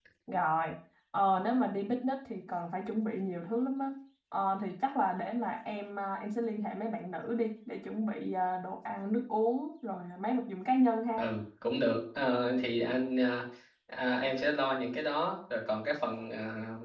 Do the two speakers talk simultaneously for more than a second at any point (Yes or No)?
No